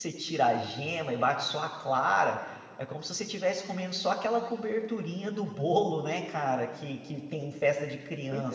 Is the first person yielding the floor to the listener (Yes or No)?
Yes